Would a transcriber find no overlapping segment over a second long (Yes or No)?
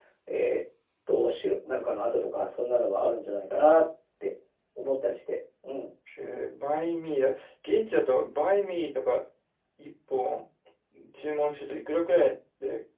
Yes